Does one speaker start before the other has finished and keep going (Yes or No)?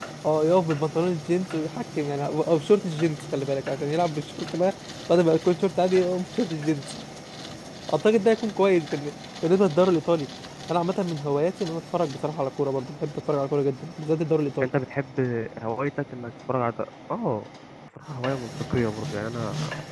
No